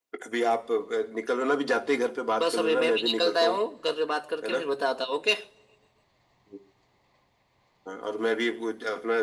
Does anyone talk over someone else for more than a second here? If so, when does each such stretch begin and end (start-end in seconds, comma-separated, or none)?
2.4-3.6